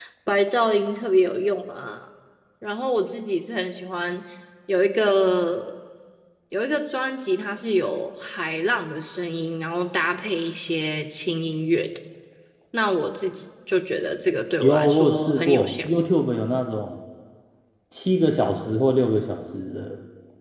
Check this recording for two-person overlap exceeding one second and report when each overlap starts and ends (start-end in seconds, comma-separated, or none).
14.6-15.9